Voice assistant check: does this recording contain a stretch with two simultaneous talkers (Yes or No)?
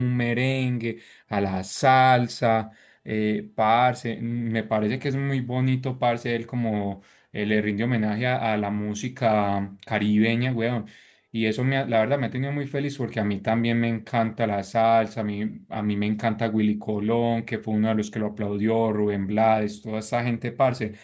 No